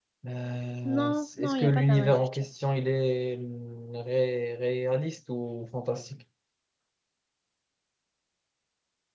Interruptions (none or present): present